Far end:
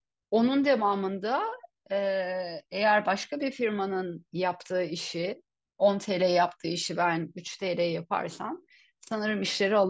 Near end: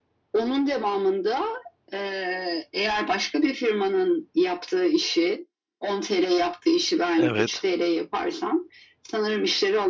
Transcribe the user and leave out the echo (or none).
Evet.